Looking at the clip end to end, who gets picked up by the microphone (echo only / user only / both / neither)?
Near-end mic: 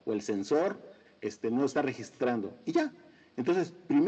echo only